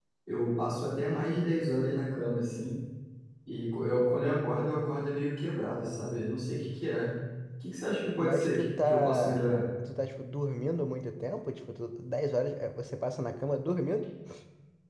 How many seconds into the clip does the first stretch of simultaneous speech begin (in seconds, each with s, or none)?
8.2 s